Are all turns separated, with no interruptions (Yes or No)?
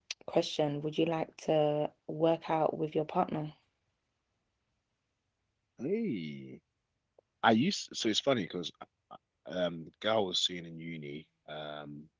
Yes